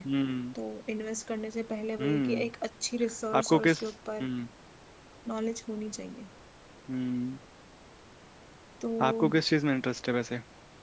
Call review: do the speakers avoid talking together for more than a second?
Yes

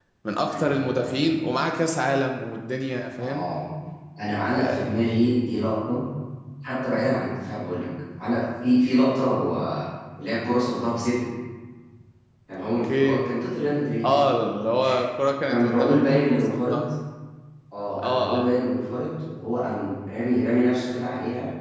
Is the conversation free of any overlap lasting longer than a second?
No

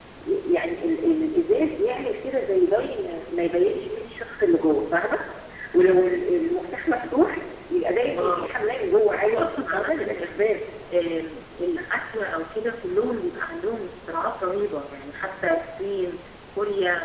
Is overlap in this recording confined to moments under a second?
No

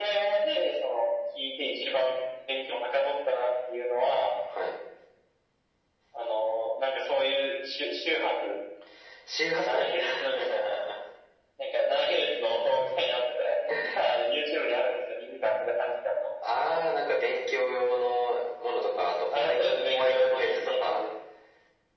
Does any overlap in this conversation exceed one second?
Yes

